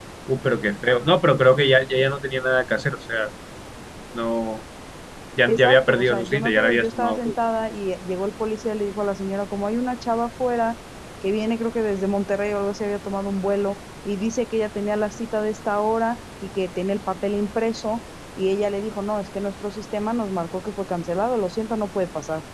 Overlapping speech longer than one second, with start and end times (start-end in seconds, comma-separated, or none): 5.5-7.3